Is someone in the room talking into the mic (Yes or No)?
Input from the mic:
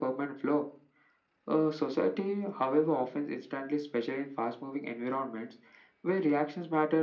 No